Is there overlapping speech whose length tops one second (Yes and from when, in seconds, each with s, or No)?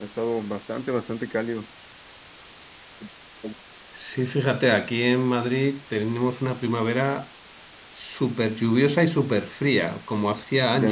No